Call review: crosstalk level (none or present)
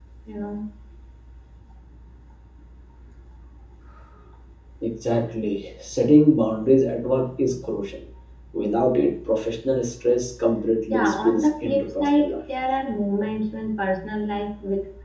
present